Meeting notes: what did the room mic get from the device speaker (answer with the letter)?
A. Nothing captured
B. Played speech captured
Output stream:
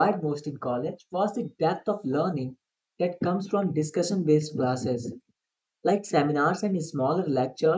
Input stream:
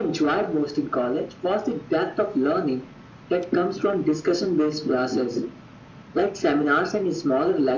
B